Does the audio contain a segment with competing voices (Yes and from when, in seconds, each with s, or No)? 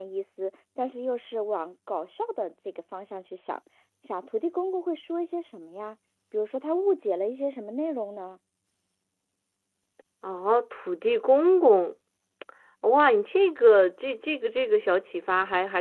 No